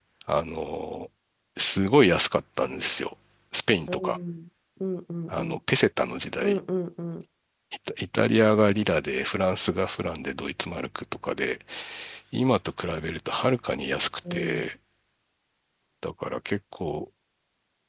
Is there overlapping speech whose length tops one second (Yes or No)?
No